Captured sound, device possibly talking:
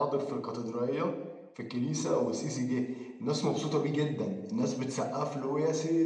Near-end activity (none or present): none